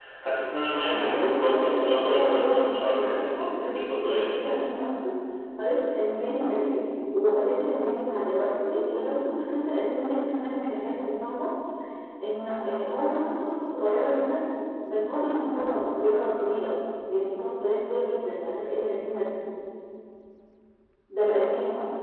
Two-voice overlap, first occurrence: 0.8 s

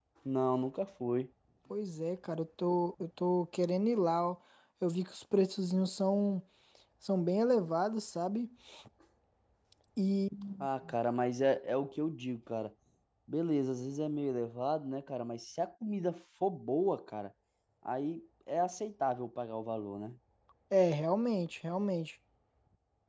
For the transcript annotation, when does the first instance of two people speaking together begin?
none

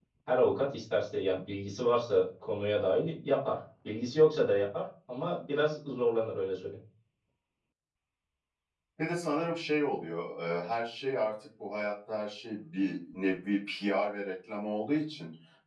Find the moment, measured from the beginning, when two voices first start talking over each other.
none

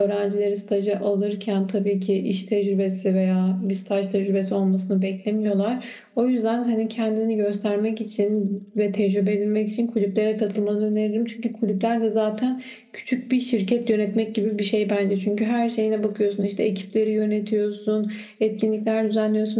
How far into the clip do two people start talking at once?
none

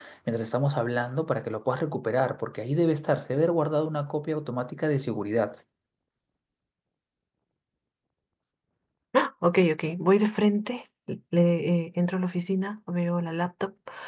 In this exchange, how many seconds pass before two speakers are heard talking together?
none

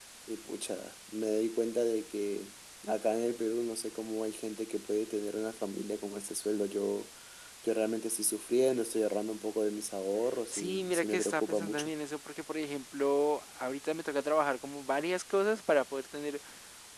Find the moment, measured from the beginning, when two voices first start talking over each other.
10.5 s

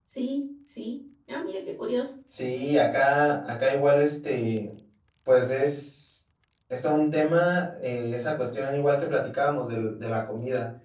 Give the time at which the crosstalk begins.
none

